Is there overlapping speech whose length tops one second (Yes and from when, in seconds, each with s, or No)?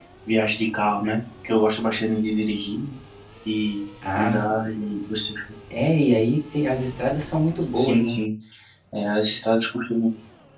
No